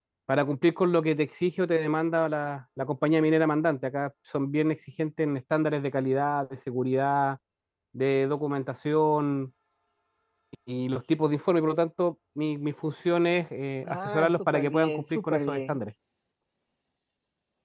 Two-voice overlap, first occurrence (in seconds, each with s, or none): 13.9 s